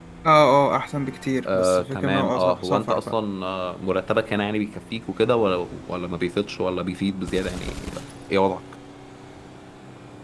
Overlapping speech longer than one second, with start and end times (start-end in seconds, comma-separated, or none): 1.4-3.0